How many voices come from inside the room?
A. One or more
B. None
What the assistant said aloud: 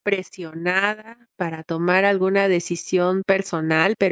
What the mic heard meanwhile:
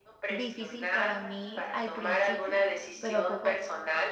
A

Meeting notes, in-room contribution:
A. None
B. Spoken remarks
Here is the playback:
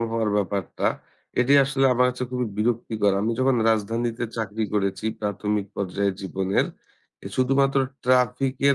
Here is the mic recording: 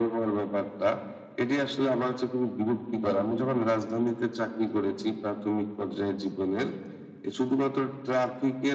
A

